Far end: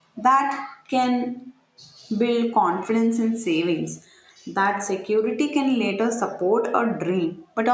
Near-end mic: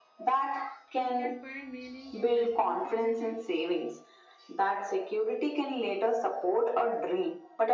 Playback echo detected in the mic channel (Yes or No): Yes